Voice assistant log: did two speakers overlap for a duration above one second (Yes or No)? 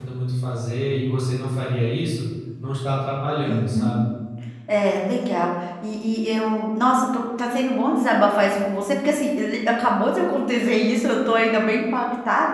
No